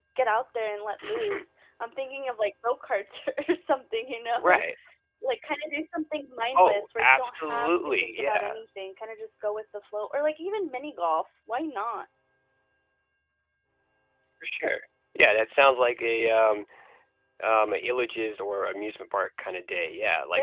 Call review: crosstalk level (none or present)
present